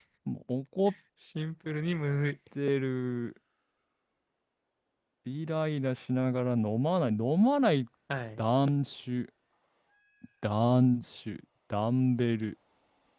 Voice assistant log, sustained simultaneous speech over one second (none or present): none